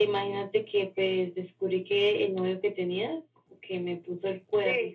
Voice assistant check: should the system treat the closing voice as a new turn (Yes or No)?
No